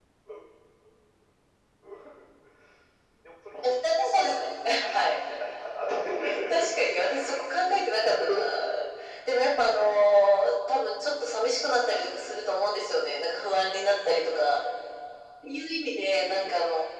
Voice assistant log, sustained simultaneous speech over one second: present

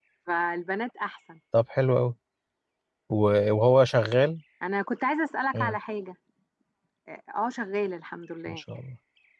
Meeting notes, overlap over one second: none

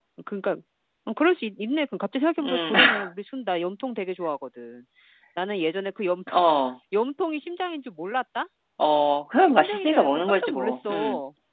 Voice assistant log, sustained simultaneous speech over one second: present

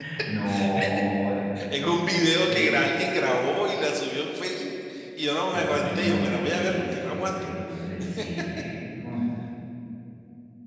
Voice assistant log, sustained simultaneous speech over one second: present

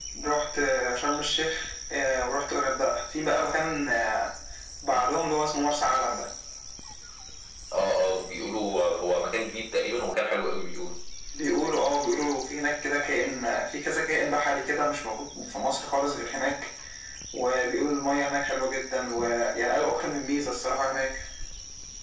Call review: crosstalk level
none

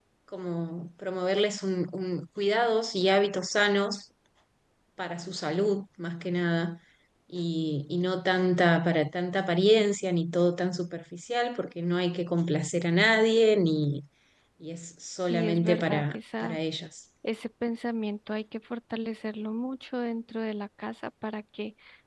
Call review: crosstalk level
present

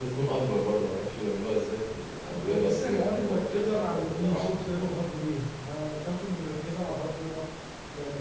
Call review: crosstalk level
present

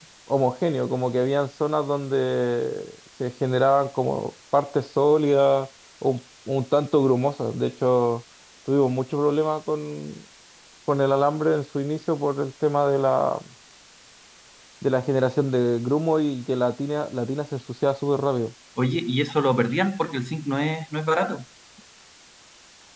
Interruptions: none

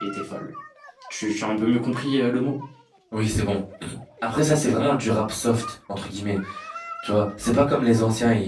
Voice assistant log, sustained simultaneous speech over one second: none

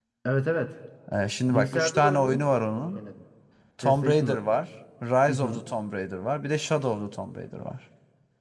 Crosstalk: present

